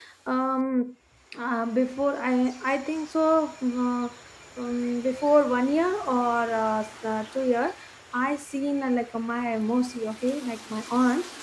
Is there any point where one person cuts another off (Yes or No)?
No